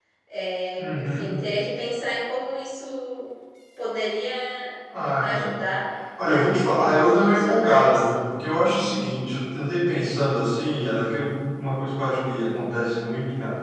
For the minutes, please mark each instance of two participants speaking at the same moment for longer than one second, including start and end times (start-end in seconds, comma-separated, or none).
6.2-8.1